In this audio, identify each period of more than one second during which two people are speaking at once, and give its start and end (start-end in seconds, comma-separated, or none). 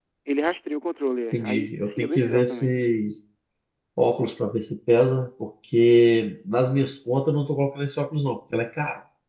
1.3-2.7